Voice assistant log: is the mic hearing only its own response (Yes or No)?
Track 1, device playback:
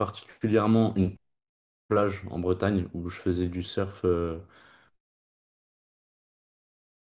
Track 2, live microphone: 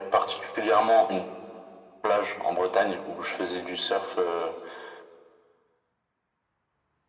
Yes